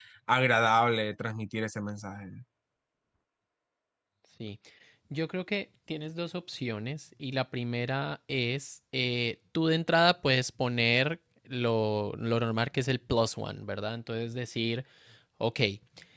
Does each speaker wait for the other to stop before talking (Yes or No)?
Yes